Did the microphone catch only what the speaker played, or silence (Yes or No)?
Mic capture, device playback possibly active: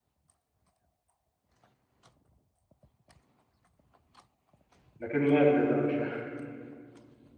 No